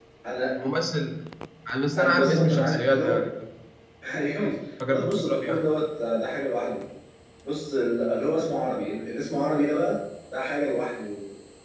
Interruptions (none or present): present